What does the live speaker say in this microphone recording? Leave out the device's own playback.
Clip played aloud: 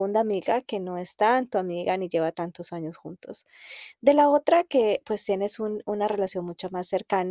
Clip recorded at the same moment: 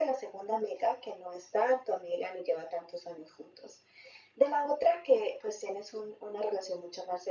none

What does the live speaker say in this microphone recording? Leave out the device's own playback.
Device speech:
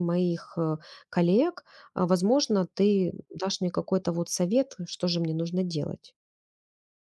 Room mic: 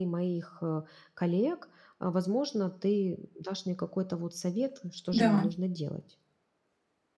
Да,

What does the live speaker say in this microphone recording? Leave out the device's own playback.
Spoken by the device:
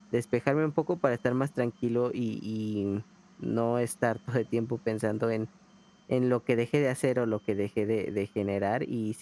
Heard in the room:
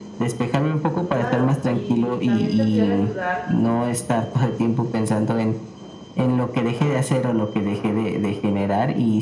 Claro, y también te pudiera ayudar

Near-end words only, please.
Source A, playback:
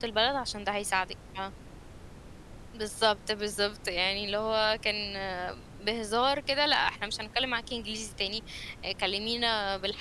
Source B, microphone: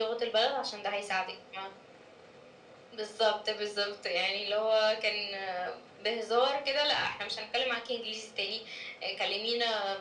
none

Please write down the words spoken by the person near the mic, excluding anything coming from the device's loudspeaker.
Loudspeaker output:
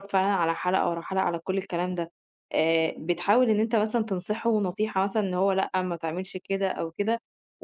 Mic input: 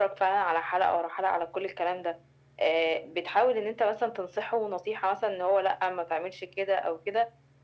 none

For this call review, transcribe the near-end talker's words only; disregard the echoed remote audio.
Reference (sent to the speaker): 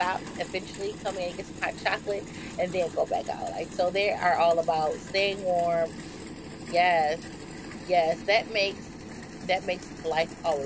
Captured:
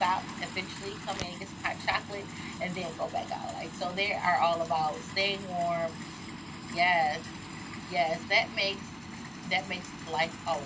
none

